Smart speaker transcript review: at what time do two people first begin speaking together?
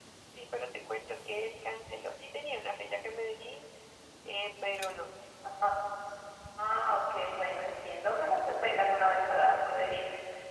none

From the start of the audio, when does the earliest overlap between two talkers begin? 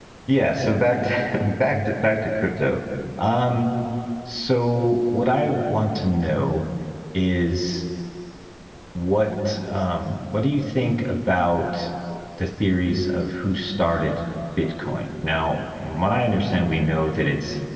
none

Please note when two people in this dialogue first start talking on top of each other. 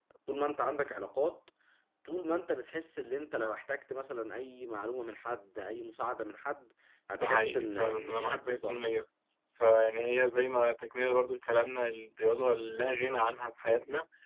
7.1 s

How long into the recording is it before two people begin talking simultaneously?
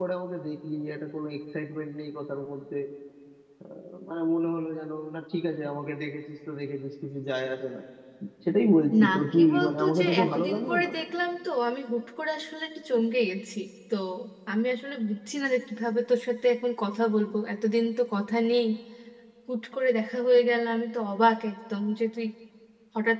9.0 s

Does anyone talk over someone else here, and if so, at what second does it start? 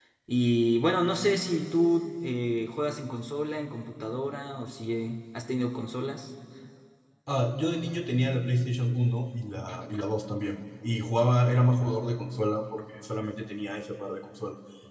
none

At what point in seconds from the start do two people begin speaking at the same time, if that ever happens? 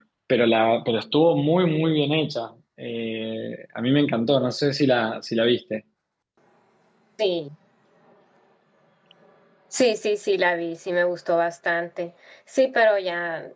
none

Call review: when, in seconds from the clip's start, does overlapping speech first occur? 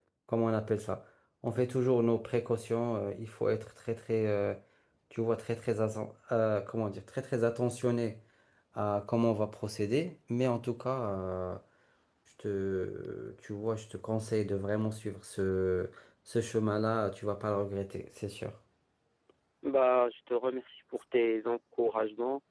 none

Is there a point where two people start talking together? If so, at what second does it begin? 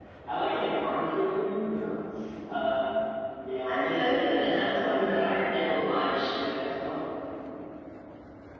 3.6 s

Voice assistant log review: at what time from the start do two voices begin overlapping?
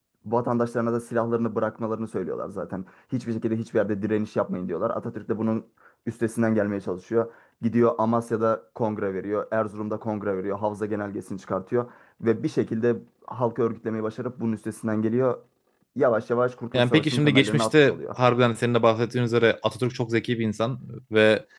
16.7 s

